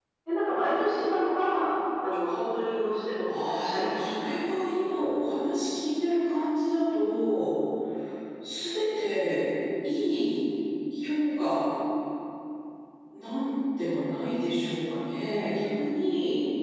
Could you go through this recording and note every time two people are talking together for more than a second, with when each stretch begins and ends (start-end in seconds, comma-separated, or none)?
3.4-4.8